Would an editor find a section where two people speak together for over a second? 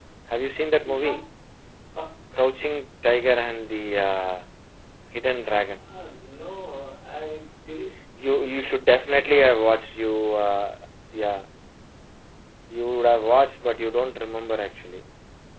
No

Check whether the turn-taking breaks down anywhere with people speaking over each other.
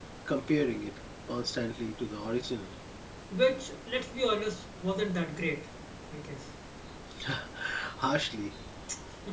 No

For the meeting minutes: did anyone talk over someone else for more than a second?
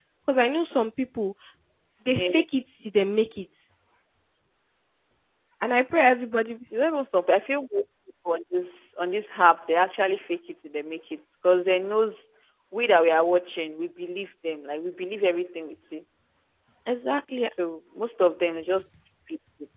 No

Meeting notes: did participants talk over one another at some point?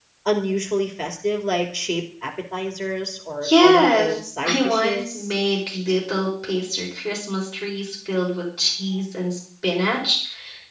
Yes, from 3.4 s

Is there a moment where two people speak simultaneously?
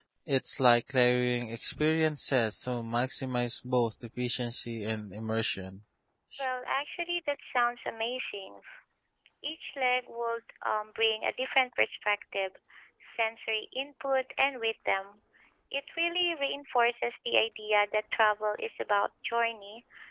No

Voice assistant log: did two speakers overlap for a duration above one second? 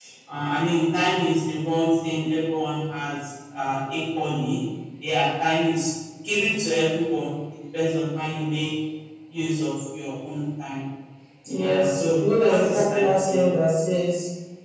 Yes, from 11.5 s

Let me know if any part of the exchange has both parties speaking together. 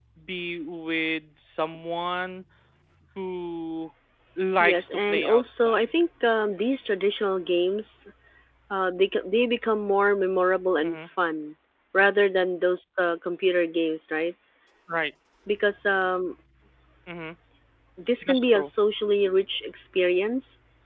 Yes, from 4.6 s

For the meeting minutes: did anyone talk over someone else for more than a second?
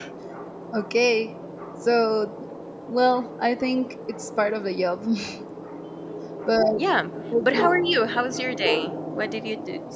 No

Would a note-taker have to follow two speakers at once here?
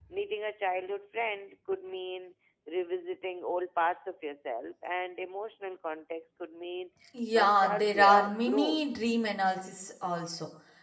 Yes, from 7.3 s

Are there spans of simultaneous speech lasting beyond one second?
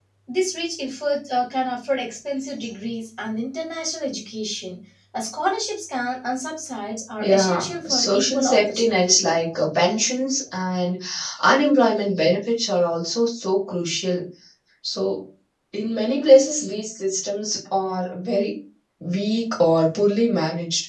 Yes, from 7.2 s

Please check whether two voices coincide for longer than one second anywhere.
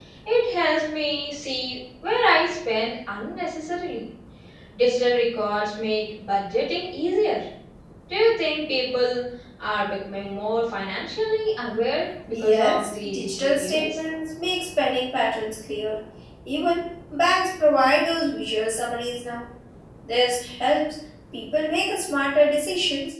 Yes, from 12.3 s

